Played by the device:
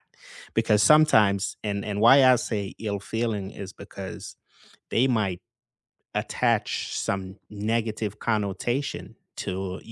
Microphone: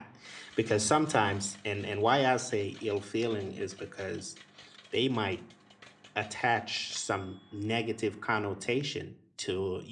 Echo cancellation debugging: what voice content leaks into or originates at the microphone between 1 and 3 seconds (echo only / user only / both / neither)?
echo only